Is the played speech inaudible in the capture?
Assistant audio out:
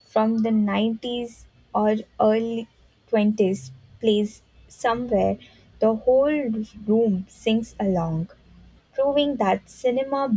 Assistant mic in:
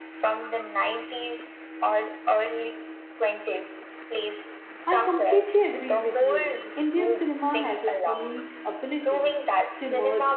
No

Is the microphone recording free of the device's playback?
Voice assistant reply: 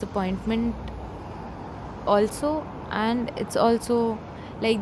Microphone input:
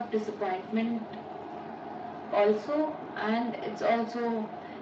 No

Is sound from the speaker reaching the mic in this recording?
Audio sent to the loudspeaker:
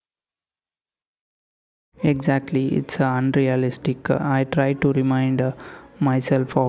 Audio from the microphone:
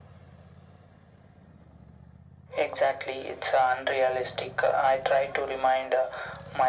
Yes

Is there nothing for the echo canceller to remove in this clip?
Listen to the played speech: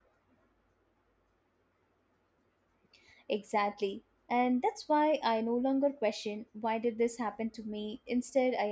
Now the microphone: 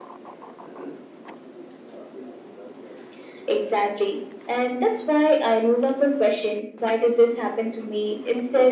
No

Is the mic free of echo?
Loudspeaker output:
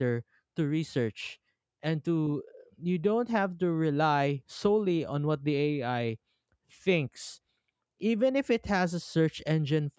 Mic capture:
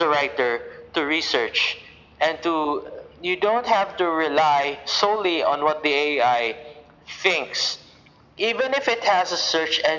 No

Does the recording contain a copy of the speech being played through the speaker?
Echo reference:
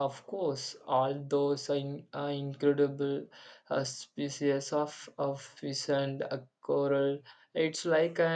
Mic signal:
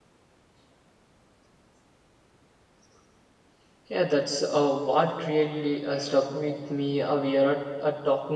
No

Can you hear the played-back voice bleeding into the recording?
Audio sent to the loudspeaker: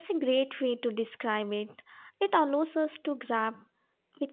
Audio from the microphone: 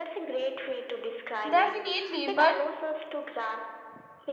Yes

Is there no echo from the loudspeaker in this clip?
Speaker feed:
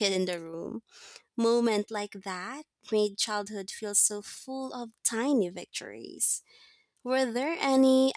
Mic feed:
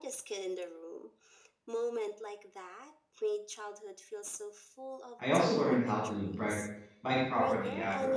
No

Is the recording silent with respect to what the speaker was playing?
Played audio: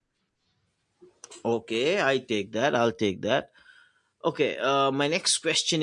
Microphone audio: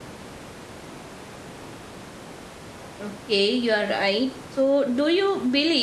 Yes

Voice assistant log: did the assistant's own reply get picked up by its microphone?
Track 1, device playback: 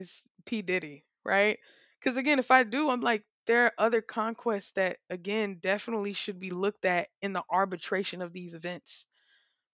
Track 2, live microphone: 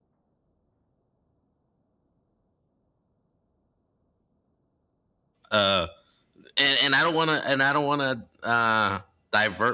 No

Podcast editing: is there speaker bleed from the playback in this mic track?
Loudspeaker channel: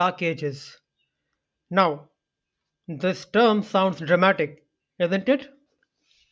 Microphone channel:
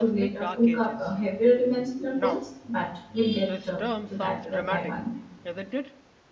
Yes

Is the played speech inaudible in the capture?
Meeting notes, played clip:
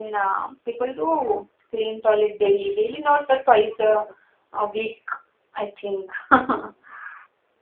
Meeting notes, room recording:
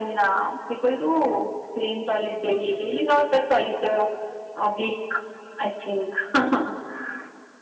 No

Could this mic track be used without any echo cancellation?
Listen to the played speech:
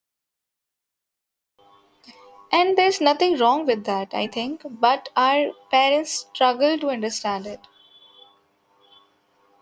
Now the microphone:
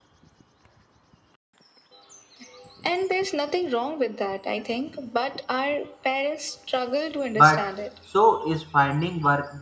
No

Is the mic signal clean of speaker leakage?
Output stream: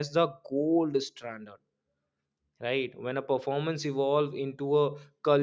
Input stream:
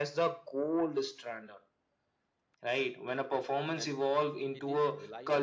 No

